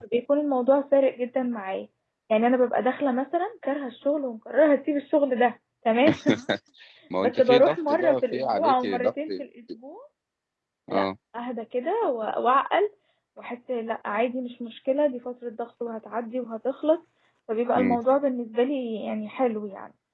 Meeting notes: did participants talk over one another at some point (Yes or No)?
Yes